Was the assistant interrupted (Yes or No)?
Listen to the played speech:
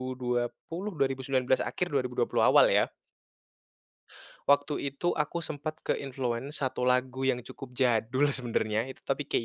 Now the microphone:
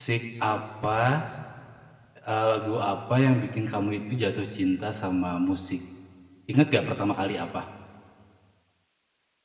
Yes